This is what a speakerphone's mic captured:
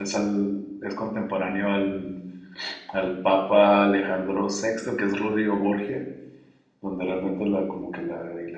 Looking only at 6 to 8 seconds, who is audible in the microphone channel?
user only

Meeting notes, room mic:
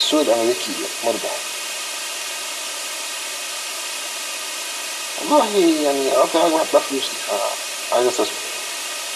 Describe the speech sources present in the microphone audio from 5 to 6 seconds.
echo only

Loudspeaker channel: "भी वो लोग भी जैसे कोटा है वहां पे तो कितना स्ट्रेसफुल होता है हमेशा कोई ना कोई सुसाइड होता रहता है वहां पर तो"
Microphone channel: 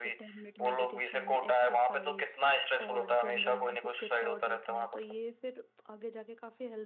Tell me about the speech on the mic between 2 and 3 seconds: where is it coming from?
both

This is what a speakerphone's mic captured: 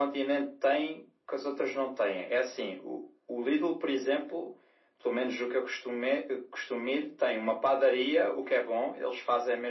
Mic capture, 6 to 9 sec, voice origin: echo only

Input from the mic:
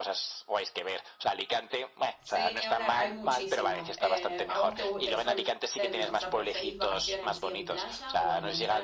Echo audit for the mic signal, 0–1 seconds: echo only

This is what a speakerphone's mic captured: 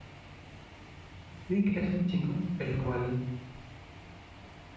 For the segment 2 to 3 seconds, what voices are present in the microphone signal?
user only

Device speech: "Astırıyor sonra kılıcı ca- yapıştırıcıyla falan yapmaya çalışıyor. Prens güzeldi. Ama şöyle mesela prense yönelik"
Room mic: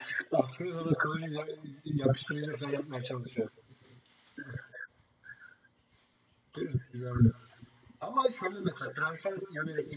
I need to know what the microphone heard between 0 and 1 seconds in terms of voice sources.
echo only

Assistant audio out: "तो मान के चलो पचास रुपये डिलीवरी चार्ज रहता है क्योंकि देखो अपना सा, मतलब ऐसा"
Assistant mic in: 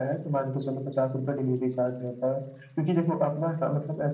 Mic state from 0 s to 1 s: echo only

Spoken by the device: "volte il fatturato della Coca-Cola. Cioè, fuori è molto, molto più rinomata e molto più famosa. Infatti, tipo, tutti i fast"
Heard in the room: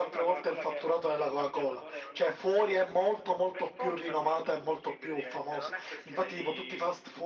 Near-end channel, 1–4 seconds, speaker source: both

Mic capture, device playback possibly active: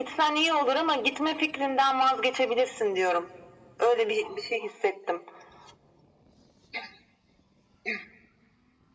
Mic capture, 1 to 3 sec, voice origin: echo only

